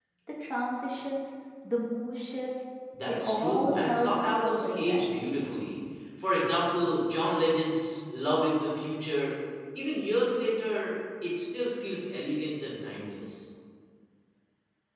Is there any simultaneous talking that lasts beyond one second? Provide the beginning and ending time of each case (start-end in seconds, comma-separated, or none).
3.1-5.2